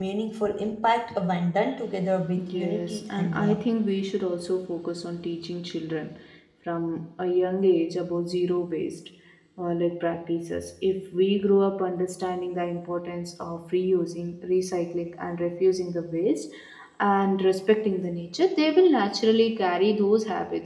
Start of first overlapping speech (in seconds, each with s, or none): 2.4 s